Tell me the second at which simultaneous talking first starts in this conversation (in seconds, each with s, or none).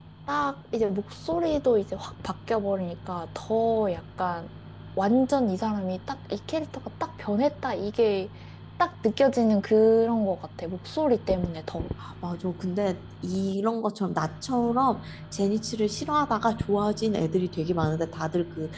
none